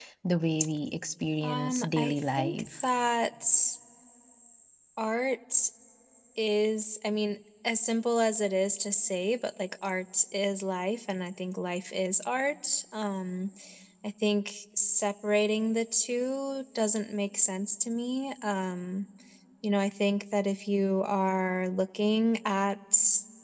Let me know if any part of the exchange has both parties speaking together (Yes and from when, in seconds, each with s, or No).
Yes, from 1.4 s